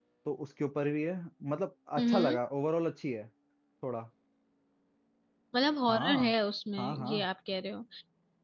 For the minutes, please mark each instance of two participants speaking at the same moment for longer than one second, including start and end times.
none

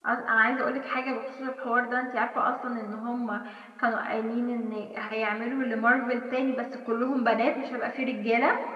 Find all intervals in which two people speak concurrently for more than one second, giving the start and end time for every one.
none

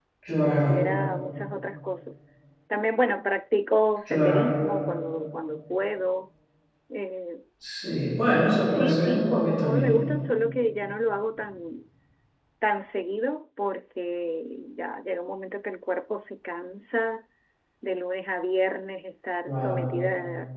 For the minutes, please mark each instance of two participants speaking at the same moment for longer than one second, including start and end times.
8.6-9.9

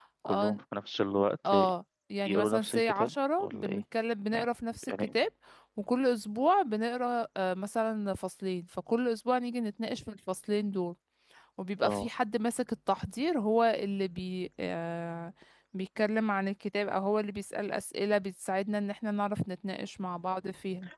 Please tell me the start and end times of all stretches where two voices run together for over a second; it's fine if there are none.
2.3-3.8

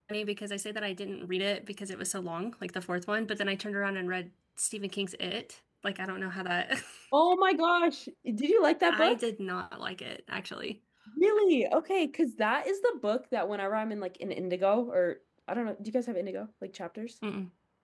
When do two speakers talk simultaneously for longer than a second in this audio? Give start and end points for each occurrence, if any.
none

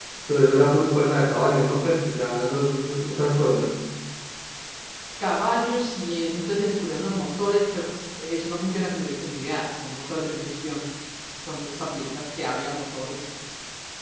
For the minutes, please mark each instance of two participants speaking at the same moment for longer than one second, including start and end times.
none

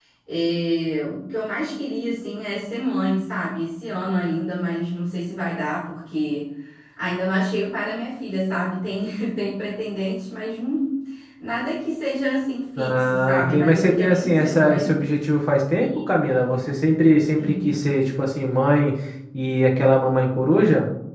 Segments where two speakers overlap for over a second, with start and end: 12.8-14.9

